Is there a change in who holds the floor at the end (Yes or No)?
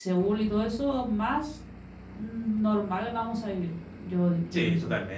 Yes